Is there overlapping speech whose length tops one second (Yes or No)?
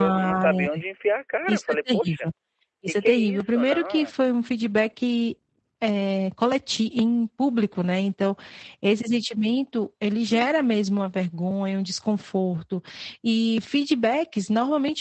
Yes